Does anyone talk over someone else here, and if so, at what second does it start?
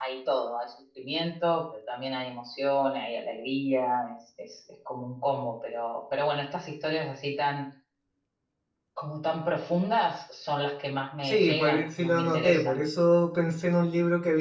11.2 s

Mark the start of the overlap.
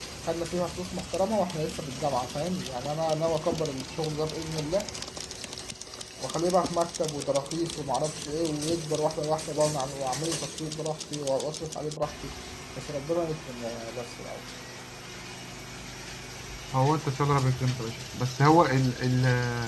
none

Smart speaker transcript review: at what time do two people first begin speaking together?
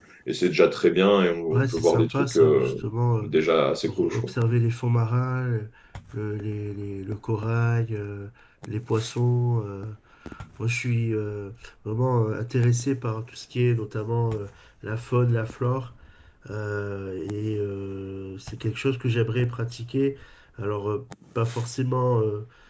1.5 s

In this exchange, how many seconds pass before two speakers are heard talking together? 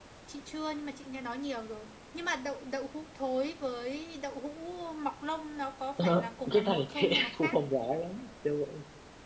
6.0 s

